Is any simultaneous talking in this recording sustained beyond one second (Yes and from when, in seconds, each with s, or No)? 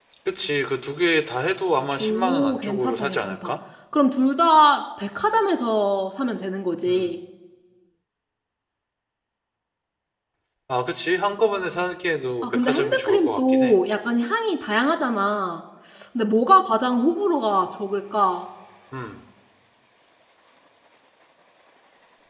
Yes, from 2.0 s